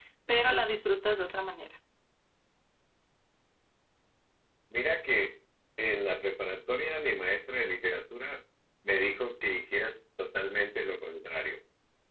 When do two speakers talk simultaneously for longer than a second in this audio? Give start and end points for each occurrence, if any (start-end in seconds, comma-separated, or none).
none